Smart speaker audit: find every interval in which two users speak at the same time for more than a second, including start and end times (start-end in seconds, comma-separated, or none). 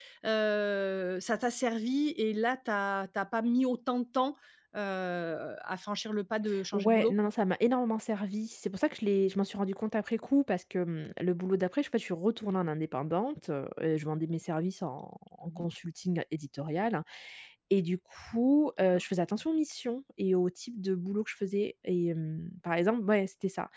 none